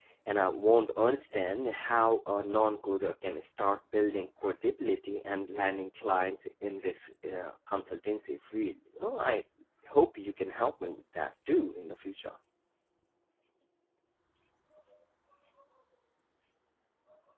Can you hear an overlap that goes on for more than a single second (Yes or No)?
No